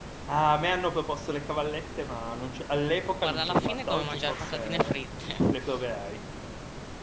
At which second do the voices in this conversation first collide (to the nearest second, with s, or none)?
3 s